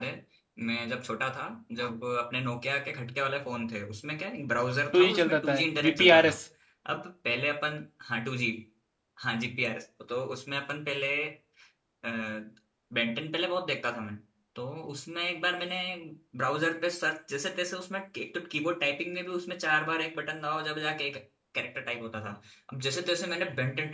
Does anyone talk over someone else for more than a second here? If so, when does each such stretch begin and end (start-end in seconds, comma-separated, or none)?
4.9-6.4